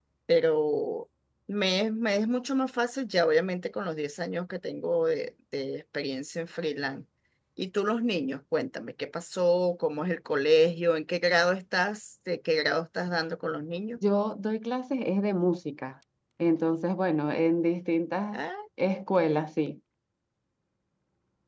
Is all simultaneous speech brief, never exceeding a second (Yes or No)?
Yes